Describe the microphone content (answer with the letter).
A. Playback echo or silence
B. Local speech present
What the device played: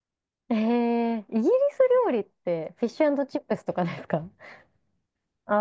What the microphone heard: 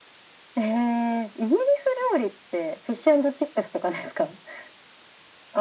A